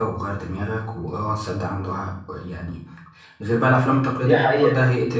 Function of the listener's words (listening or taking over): listening